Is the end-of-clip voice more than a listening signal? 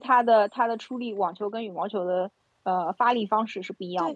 Yes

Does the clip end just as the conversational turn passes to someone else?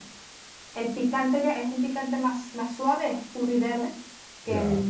No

